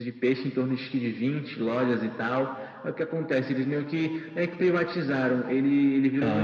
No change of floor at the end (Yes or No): Yes